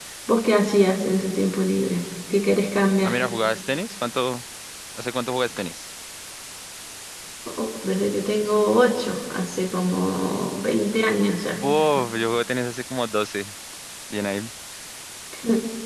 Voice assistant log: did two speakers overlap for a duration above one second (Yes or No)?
No